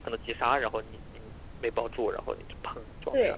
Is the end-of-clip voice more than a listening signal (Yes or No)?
Yes